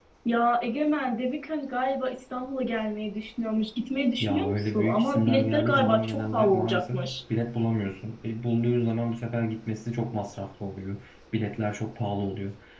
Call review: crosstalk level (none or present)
present